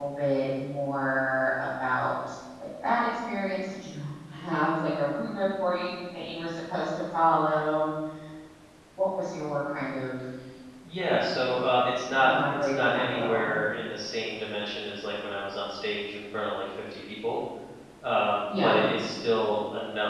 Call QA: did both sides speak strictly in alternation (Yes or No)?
No